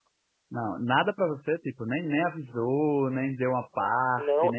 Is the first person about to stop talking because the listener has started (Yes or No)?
Yes